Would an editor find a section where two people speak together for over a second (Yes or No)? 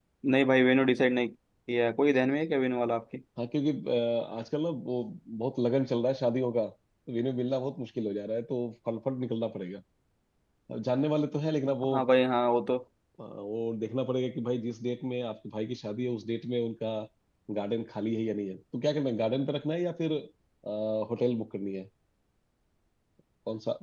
No